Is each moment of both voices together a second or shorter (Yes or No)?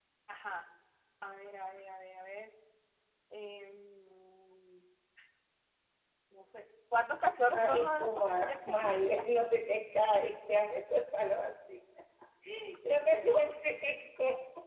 No